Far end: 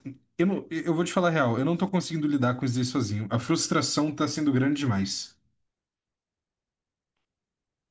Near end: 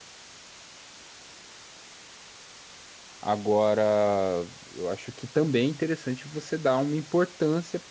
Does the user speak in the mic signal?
Yes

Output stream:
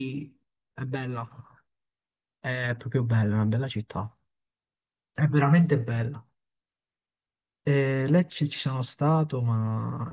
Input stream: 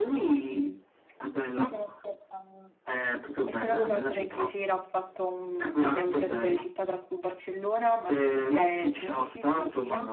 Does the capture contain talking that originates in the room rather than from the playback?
Yes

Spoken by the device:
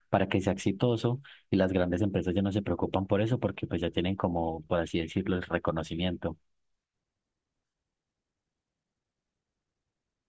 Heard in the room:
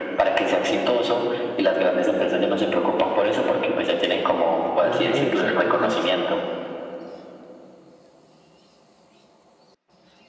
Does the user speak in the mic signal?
Yes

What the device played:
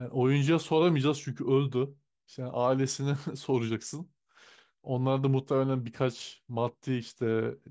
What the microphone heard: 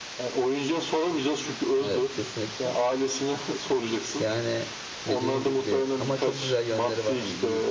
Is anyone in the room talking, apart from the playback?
Yes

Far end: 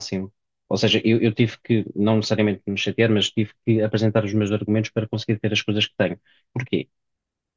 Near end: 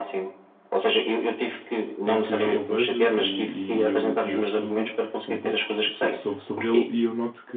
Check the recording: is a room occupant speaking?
Yes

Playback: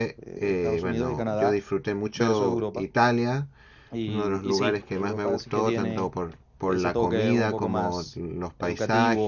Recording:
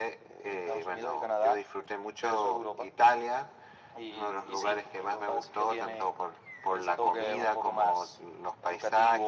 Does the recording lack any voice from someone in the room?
Yes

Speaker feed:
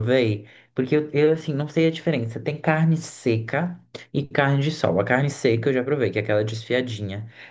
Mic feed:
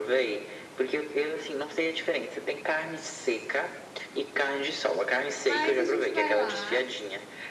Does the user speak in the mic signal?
Yes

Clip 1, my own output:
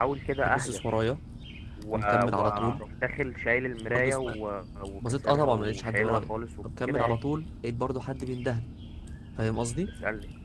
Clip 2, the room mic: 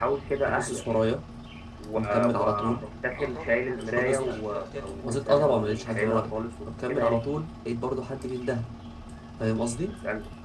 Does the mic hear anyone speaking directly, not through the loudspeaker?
Yes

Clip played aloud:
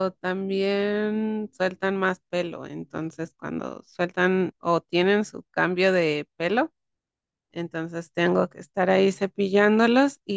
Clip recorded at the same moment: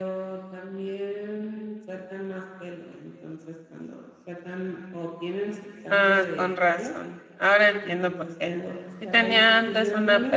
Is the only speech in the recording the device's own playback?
No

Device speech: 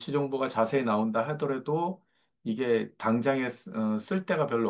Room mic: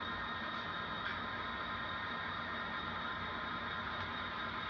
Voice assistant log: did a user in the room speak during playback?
No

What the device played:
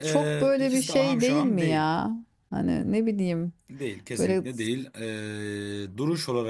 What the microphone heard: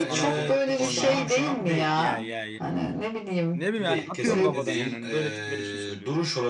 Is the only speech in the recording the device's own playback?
No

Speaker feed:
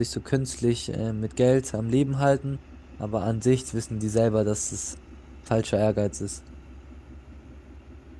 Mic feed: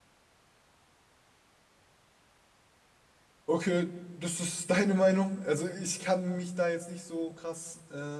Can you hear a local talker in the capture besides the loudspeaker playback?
Yes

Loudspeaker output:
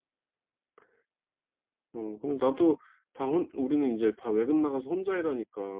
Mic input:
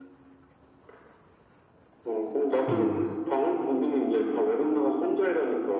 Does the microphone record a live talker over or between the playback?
Yes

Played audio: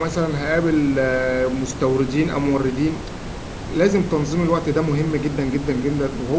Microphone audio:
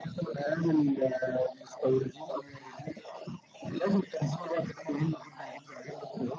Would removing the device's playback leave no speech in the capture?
Yes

